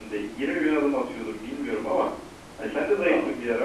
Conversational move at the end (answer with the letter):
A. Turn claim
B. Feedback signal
B